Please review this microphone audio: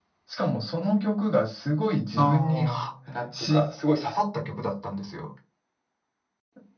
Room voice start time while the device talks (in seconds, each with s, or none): 2.2 s